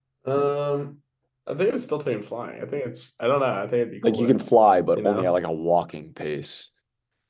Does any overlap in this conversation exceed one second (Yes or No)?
No